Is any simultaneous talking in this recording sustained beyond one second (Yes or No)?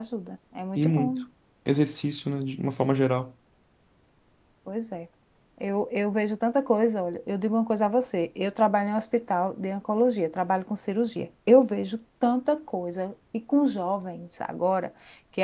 No